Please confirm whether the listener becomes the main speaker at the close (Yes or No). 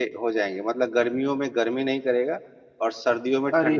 Yes